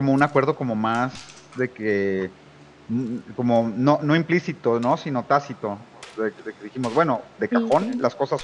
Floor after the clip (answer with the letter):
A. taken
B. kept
B